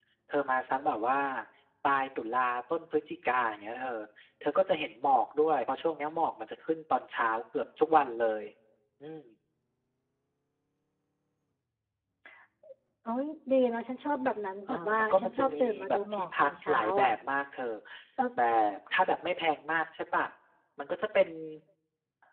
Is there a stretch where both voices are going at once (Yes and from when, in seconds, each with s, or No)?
Yes, from 14.7 s